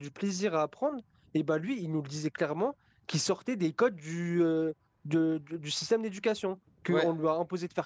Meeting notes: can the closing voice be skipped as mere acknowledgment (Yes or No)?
Yes